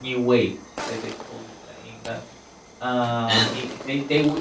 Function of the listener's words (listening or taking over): listening